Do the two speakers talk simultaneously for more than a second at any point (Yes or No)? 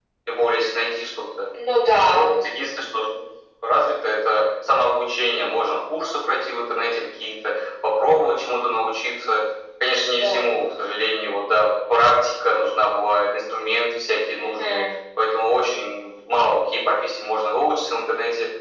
No